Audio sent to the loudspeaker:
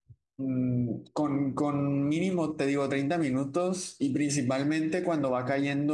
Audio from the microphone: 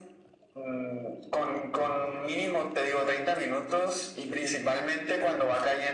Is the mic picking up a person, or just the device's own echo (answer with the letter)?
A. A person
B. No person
B